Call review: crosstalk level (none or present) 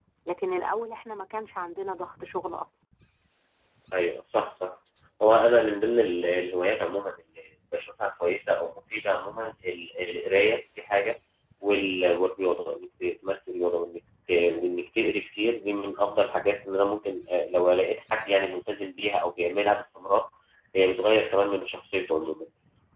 none